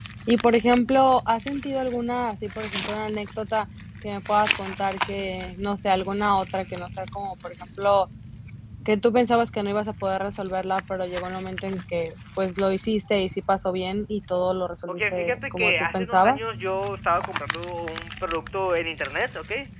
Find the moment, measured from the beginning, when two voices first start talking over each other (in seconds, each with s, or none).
14.9 s